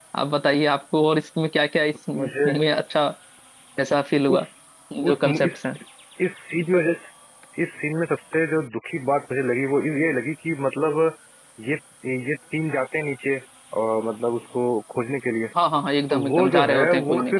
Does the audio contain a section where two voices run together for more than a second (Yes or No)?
Yes